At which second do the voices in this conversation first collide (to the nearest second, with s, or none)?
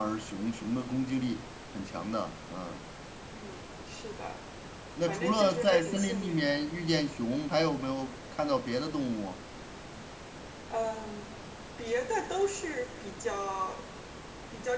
5 s